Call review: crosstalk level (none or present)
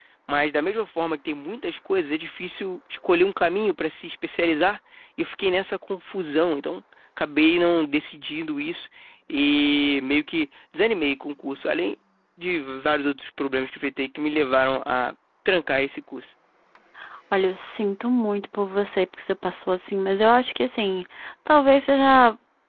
none